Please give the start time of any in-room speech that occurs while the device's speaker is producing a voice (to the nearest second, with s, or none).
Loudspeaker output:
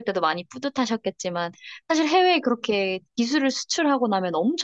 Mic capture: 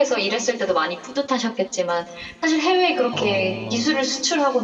3 s